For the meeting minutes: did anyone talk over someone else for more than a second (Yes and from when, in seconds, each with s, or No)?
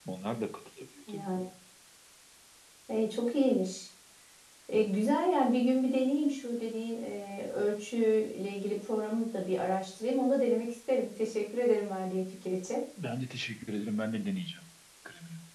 No